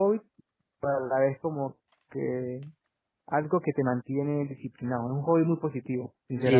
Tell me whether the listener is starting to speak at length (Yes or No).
Yes